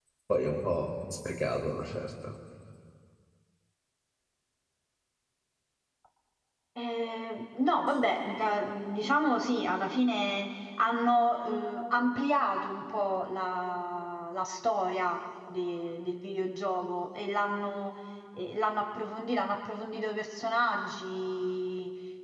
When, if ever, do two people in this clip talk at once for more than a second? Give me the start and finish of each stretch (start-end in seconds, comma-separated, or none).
none